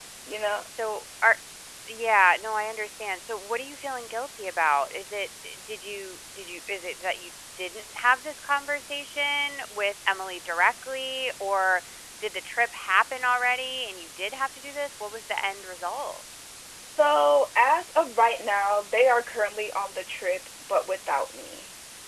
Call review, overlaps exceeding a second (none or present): none